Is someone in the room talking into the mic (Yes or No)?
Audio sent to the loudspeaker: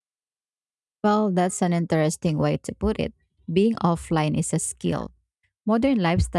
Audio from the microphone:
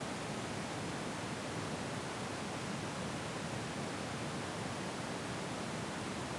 No